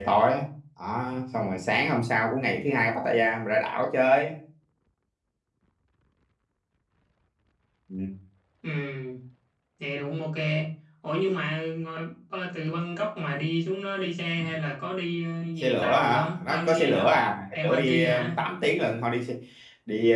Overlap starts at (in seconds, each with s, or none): 15.6 s